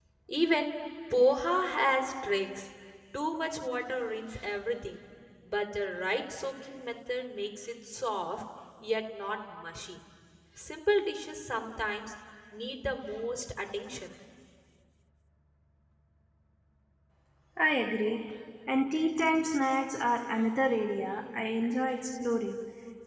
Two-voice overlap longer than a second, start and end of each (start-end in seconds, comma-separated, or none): none